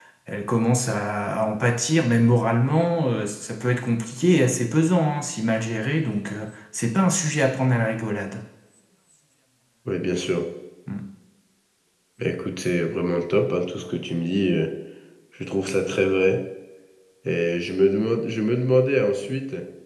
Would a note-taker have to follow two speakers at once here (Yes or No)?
No